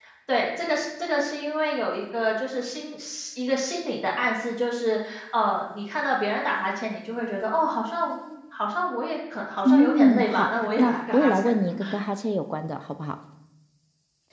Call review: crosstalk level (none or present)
present